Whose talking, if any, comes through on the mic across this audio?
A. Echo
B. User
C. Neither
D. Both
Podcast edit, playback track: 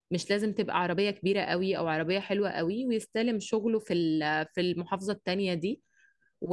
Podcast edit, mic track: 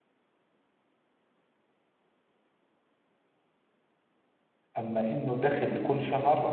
B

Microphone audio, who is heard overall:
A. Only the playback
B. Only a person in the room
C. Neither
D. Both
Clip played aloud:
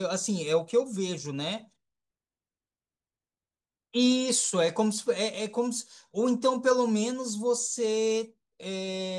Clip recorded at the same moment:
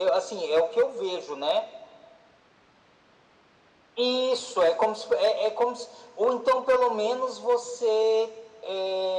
A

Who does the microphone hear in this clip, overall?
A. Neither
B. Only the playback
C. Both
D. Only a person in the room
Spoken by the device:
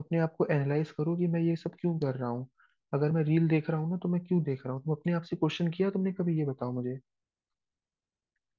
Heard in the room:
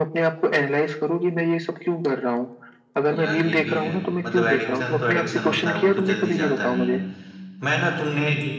C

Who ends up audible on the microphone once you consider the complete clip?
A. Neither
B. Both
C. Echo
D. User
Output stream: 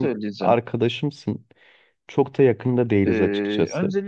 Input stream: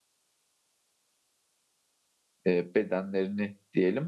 D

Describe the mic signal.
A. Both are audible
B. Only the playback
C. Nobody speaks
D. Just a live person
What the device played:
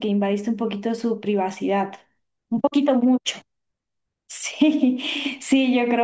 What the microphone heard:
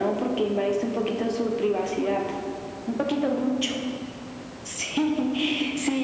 B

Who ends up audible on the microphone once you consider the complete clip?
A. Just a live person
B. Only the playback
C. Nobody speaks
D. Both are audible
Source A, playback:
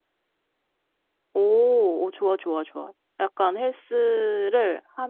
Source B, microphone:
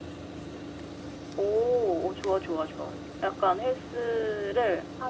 B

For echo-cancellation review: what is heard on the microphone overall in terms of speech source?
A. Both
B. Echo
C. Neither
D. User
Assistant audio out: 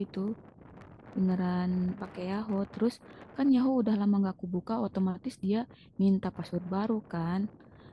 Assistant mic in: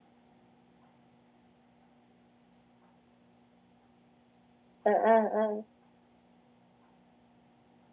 D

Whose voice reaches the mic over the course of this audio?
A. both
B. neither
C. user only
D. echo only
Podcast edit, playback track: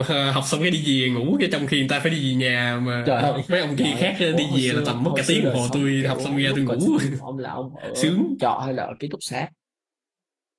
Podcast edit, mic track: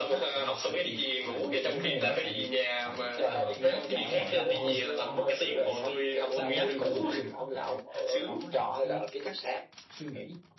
A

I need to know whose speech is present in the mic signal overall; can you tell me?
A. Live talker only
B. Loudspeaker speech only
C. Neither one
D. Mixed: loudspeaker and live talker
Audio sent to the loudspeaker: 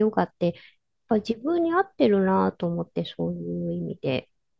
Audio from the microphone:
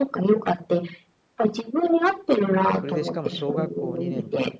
D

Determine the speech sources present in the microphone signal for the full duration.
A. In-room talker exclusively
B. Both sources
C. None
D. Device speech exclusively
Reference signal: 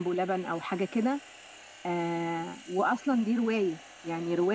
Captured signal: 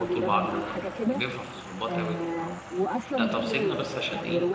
B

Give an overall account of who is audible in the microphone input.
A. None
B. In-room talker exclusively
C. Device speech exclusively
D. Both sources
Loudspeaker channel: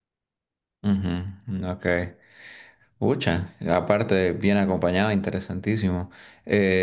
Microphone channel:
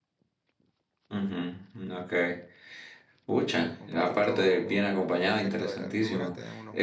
D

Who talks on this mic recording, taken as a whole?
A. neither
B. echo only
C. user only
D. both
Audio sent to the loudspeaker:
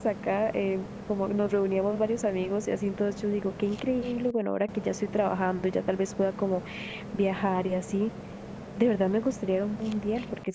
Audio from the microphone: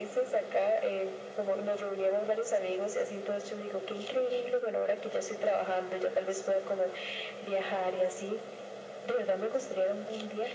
B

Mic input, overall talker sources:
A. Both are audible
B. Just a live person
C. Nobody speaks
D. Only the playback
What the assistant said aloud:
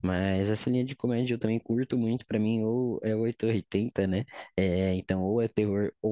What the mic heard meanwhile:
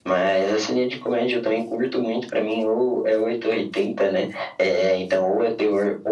D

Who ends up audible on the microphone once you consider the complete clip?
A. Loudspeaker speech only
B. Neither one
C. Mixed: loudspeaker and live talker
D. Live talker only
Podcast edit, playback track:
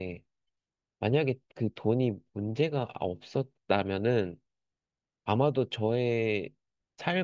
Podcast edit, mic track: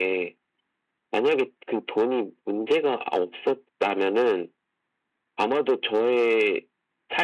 A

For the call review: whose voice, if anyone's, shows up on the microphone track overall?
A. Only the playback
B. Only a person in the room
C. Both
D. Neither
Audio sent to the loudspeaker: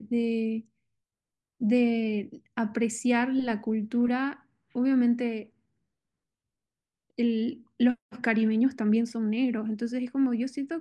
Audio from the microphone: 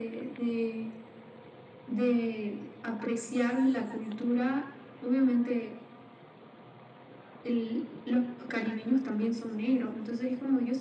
A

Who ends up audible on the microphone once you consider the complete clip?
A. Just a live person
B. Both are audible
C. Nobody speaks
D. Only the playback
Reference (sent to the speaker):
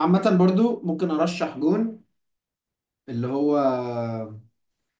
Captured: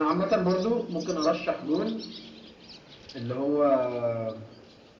D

